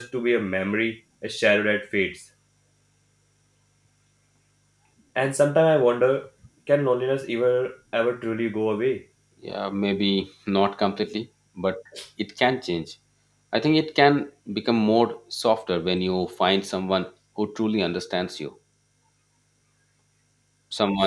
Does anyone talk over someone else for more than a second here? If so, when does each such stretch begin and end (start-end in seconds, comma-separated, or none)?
none